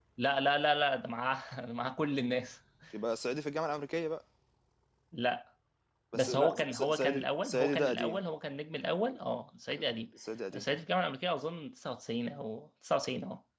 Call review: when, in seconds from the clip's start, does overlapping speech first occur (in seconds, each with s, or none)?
6.1 s